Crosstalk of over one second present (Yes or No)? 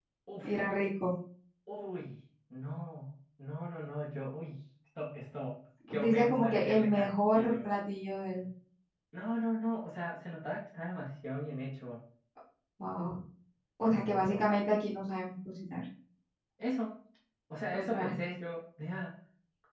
Yes